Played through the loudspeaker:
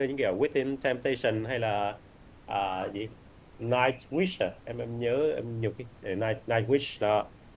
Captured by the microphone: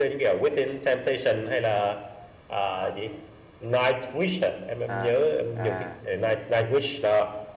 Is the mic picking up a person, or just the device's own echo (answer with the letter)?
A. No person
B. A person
B